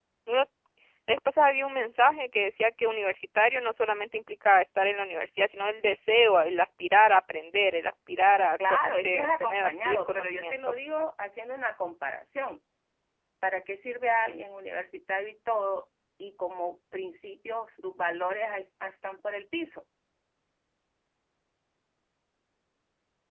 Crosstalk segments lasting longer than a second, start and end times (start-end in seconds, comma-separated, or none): 8.7-10.7